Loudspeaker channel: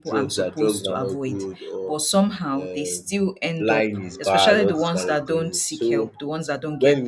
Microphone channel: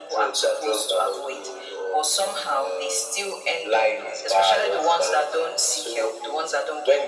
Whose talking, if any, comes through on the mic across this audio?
echo only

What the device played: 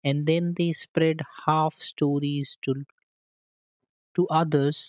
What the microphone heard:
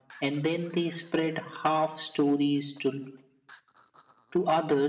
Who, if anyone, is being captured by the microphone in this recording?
echo only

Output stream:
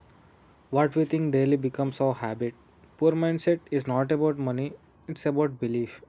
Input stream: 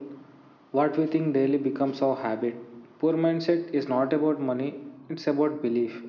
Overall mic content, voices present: echo only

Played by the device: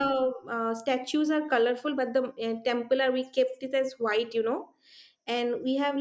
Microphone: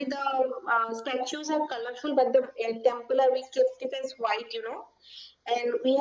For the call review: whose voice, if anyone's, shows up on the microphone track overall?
echo only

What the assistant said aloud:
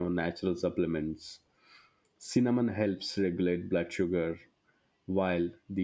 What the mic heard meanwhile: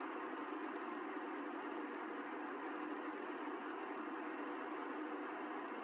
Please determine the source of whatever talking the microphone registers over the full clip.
neither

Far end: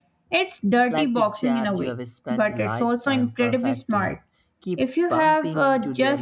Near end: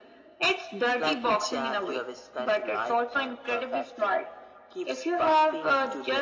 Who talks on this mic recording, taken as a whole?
echo only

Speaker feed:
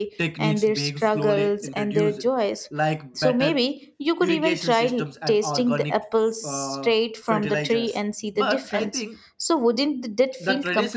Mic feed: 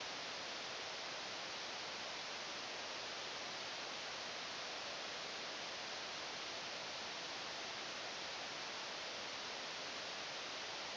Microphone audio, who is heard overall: neither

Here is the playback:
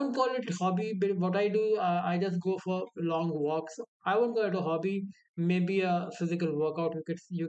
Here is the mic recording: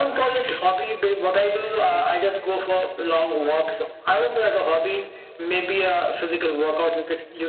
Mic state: both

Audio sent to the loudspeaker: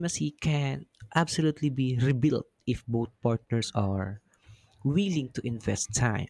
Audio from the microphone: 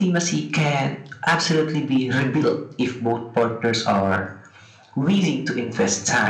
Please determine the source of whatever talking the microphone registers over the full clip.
echo only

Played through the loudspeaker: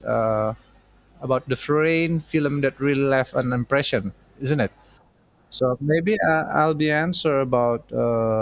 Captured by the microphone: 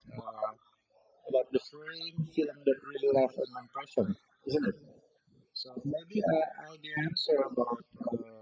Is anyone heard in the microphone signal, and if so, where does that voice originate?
echo only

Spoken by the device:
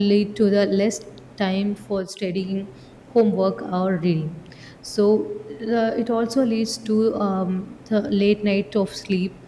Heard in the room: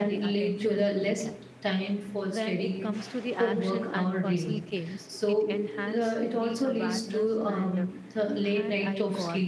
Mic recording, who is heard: both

